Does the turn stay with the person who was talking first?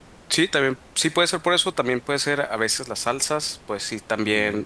Yes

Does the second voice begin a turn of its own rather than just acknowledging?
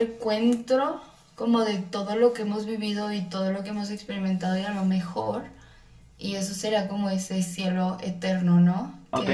Yes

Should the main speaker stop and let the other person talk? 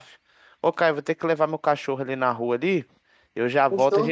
No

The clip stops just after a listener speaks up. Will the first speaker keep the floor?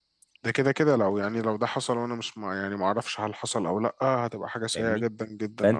No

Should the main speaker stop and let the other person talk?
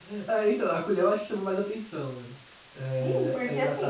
Yes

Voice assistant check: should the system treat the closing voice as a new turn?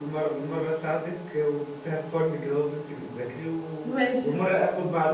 No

